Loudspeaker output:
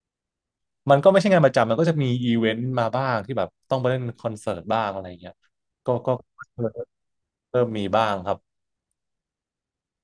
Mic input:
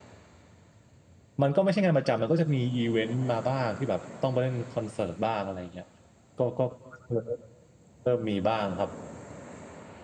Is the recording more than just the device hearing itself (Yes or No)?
No